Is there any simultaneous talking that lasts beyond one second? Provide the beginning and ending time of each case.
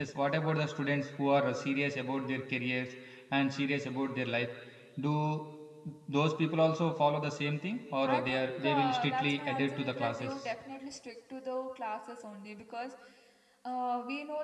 8.0-10.3

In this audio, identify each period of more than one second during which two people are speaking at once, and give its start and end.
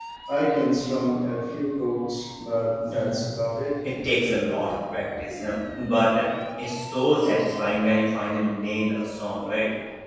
none

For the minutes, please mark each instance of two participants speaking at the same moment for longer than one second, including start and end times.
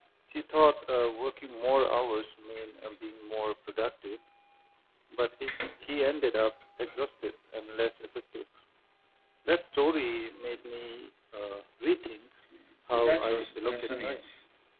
12.9-14.3

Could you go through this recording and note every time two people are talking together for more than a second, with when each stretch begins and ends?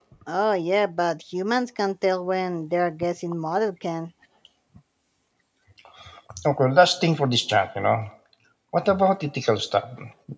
none

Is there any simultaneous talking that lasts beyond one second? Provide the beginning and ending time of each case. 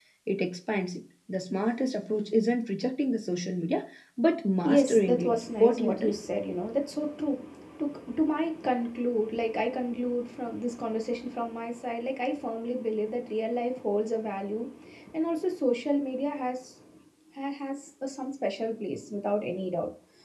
4.6-6.1

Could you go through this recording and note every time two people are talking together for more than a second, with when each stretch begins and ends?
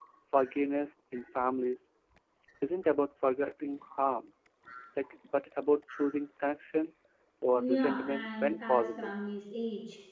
7.6-9.2

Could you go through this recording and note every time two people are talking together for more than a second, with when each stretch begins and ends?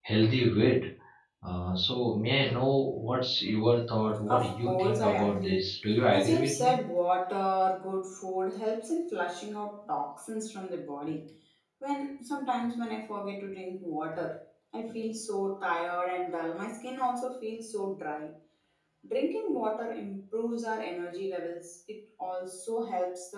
4.3-6.7

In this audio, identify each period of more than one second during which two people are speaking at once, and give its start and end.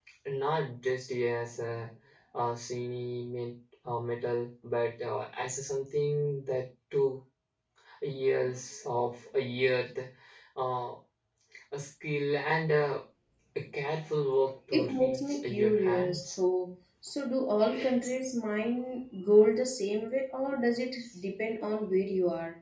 14.7-16.4

